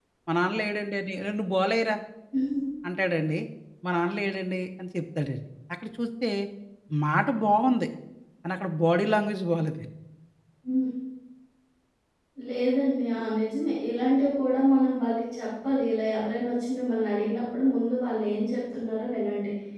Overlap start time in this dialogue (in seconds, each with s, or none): none